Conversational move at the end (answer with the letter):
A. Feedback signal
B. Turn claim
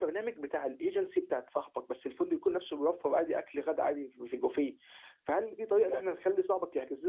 A